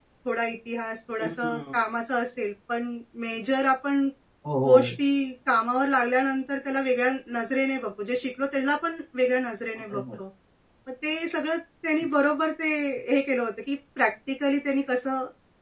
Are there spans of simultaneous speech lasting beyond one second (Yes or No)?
No